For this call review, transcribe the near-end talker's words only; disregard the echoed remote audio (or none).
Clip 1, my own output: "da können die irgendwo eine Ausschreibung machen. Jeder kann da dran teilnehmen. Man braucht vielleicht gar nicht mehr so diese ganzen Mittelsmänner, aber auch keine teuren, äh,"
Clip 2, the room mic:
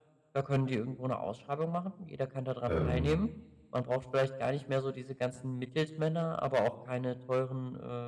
ähm,